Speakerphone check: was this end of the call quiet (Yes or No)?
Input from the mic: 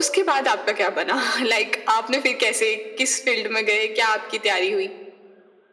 Yes